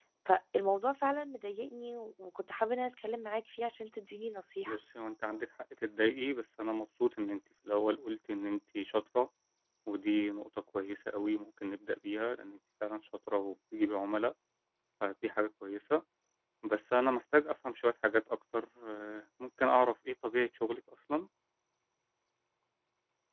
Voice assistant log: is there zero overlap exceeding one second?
Yes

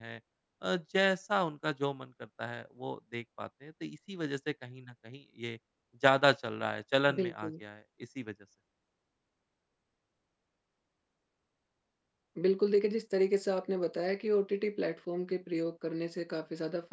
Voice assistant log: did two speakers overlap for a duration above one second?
No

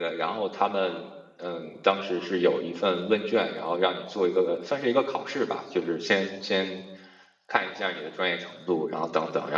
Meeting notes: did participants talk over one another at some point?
No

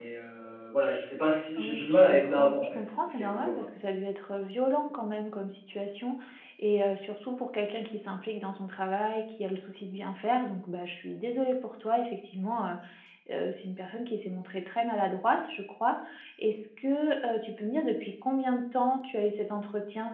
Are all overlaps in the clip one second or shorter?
No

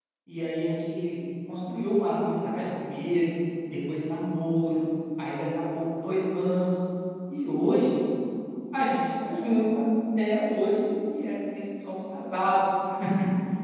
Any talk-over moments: No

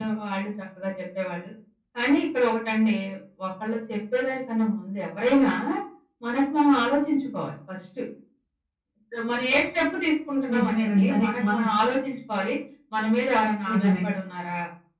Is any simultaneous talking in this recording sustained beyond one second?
Yes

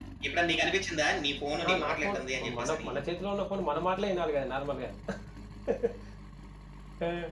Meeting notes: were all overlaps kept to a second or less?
No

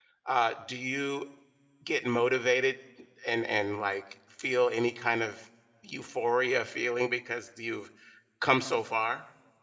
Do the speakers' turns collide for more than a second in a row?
No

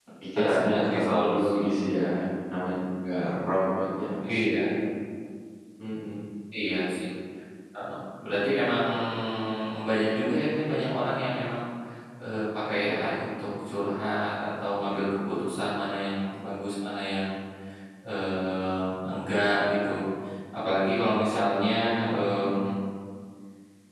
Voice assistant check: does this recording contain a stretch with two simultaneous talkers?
Yes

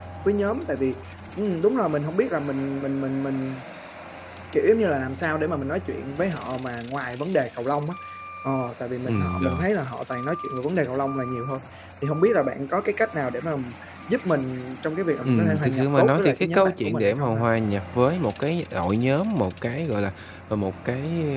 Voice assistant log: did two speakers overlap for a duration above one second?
Yes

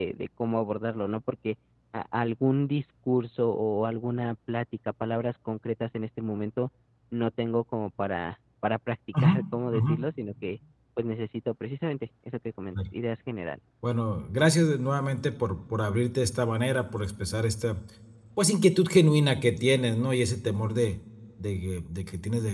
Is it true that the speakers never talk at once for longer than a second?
Yes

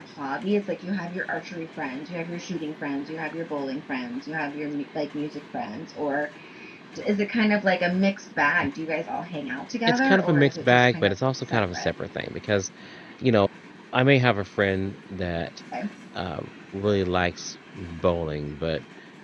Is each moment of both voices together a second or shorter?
No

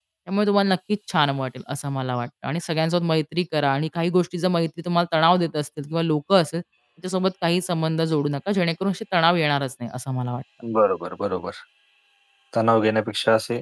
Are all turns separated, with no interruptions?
Yes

